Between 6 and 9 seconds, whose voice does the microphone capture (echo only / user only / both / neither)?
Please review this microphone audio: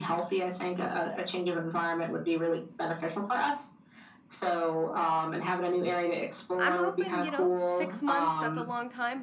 both